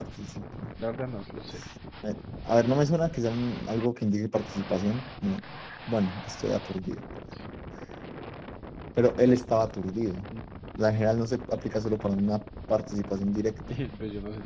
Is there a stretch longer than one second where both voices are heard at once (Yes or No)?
No